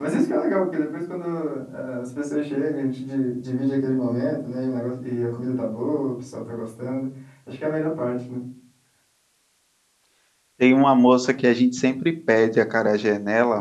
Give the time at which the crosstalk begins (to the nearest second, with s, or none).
none